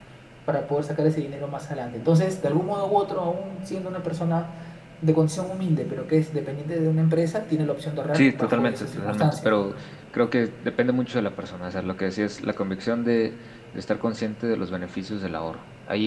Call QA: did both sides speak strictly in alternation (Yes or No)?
No